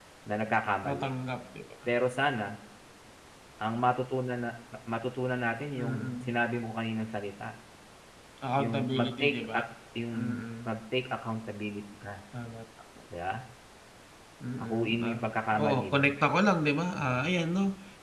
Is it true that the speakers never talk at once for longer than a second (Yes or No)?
No